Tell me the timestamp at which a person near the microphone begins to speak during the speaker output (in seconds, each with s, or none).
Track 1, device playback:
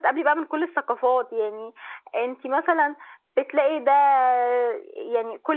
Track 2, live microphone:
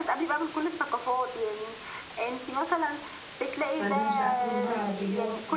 3.8 s